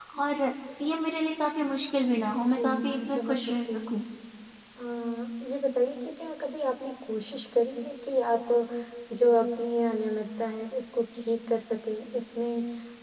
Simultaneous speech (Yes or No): Yes